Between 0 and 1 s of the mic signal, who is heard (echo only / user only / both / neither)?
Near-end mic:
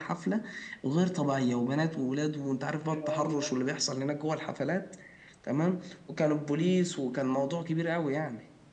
echo only